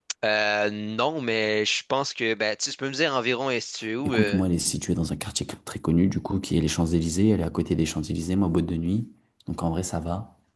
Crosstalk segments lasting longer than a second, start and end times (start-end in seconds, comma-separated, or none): none